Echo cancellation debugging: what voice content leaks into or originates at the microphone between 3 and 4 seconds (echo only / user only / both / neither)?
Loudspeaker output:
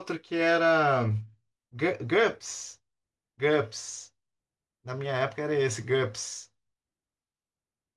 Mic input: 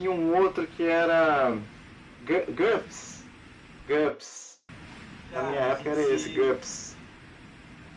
echo only